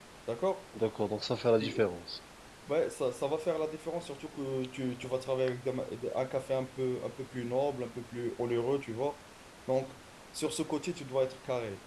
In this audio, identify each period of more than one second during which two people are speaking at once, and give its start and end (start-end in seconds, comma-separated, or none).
none